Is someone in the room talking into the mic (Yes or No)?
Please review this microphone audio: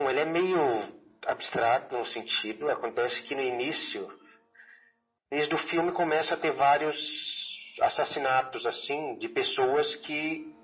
No